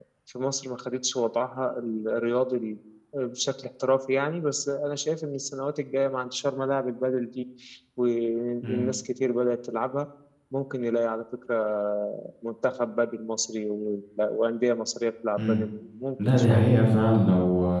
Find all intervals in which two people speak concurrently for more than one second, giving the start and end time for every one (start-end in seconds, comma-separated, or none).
none